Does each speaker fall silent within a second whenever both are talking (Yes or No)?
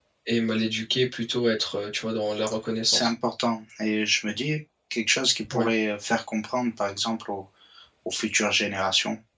Yes